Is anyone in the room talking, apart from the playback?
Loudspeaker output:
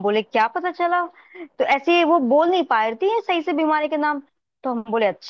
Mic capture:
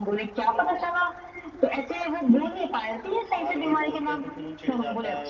Yes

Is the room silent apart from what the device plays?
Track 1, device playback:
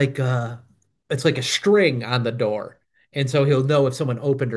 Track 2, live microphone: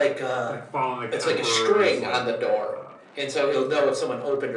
No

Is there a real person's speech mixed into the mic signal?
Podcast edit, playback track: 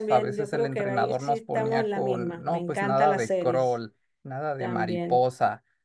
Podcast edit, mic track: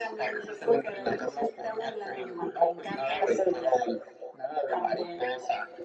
No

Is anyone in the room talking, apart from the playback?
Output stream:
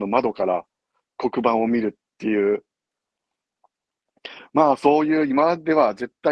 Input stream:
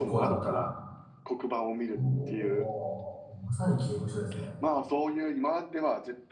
Yes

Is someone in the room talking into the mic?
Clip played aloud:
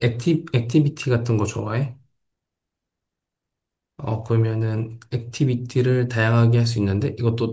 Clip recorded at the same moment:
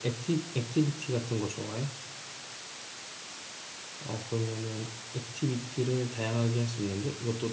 No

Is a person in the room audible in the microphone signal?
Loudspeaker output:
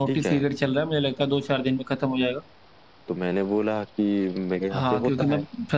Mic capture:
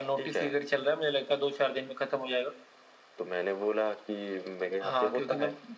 No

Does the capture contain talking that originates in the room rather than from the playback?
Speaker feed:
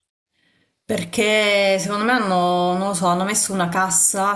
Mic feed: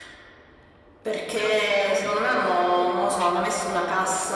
Yes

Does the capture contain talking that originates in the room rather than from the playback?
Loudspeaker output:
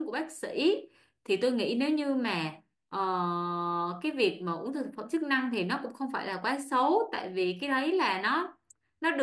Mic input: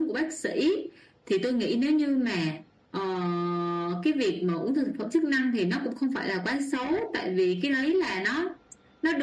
No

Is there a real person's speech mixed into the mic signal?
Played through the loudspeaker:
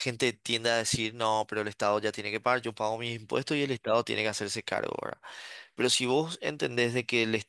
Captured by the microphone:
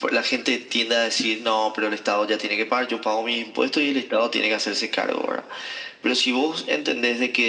No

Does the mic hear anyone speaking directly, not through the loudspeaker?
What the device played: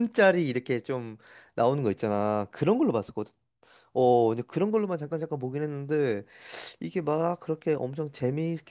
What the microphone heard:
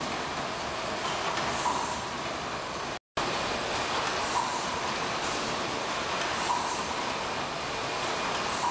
No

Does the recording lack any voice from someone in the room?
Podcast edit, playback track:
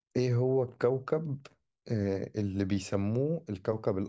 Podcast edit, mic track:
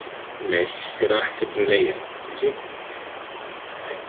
No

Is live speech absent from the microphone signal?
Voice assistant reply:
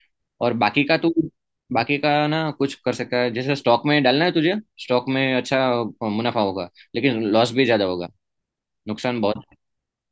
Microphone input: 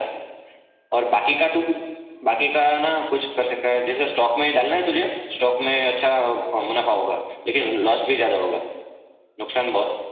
Yes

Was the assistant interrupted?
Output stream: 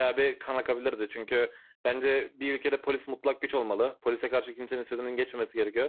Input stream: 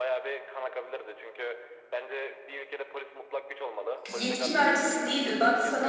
Yes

